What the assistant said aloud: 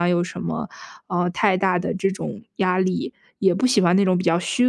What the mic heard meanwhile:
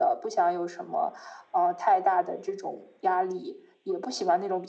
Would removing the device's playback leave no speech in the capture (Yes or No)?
Yes